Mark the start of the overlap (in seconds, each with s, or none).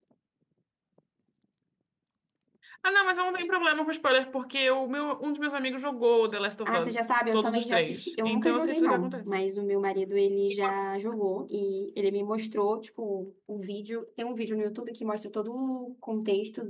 6.7 s